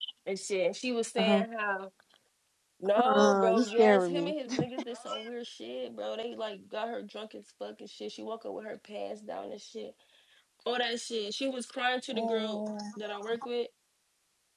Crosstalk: present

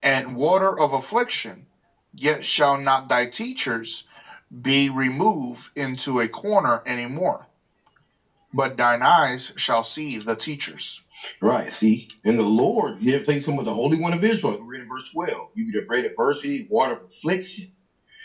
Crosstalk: none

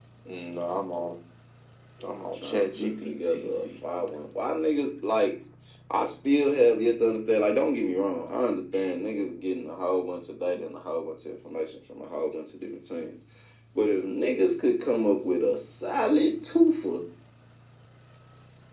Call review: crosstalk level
present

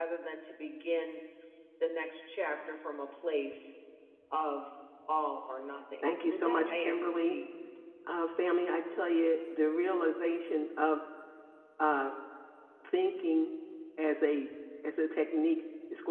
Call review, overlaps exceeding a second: present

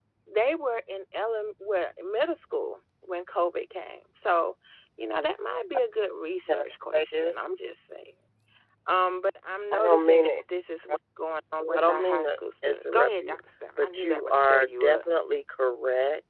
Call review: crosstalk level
present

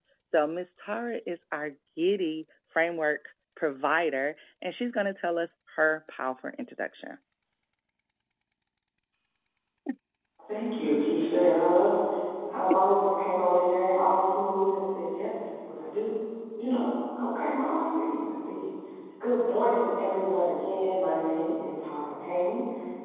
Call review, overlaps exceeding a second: none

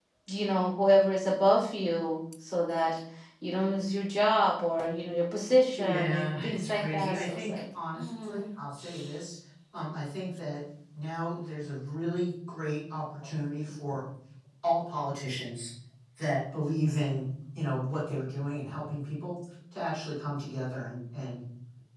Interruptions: present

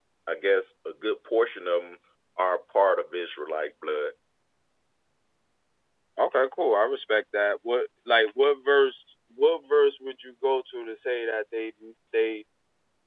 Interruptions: none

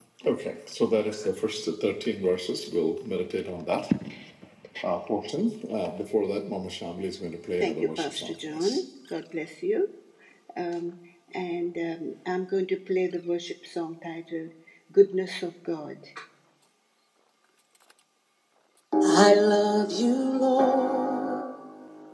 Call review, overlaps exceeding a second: present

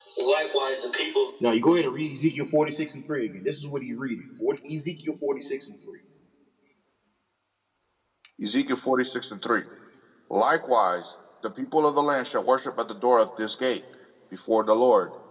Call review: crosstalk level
none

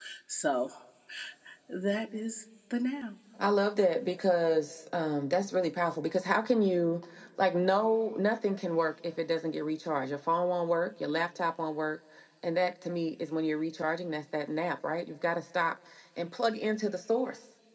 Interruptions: none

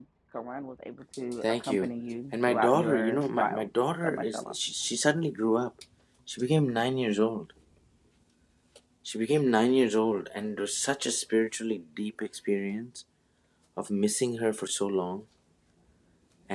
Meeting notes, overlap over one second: present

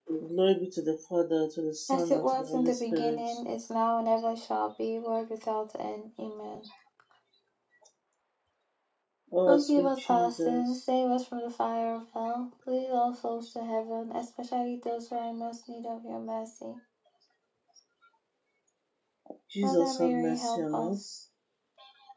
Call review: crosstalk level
present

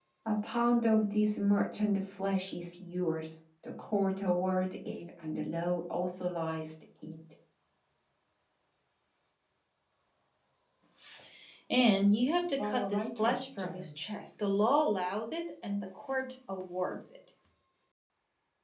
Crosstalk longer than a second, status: present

